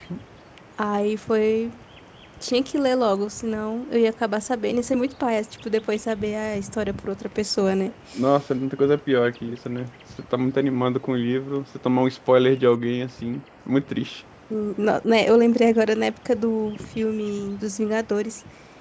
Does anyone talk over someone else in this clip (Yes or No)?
No